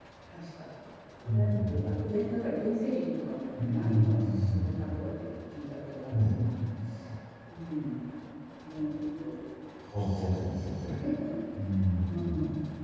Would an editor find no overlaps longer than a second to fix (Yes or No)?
No